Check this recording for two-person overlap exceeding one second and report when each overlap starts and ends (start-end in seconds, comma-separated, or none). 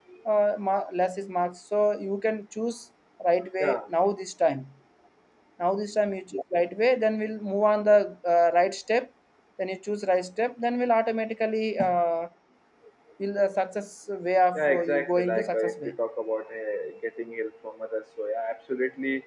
14.6-15.9